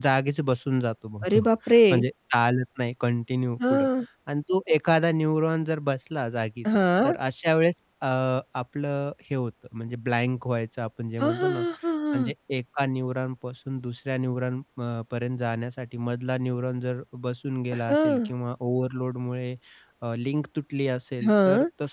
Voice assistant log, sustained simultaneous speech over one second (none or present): none